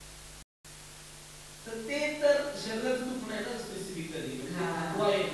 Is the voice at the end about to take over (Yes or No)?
No